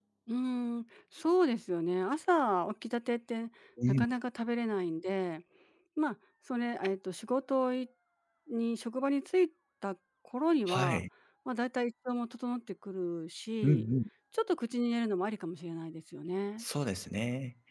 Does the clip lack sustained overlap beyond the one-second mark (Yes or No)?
Yes